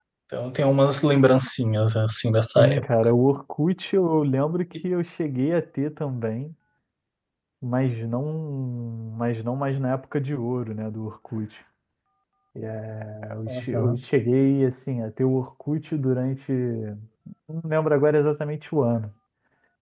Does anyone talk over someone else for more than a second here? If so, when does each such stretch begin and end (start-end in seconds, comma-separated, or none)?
none